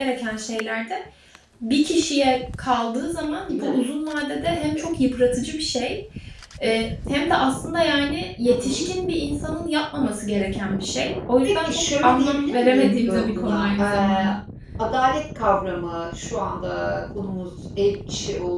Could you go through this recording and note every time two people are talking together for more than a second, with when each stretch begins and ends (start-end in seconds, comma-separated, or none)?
11.4-14.3